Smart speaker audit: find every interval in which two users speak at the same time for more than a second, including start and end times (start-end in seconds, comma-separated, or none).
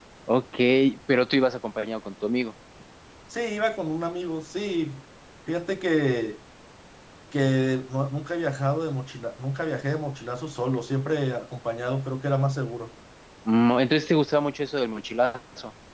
none